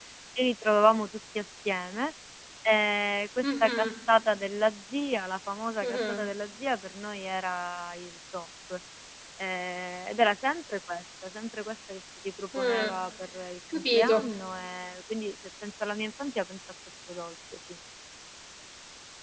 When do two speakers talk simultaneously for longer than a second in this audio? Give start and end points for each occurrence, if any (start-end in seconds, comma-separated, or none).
none